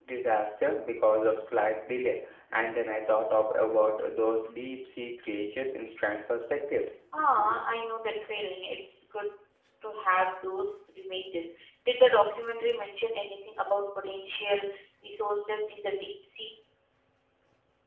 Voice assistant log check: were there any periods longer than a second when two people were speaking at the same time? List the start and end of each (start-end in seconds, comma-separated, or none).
none